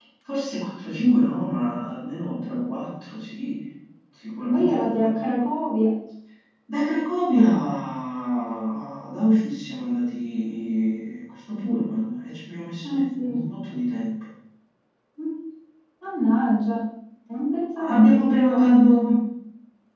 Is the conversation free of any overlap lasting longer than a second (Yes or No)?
No